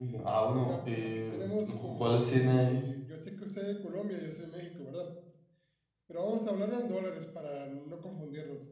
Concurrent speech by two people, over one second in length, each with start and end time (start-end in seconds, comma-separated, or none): 0.6-2.8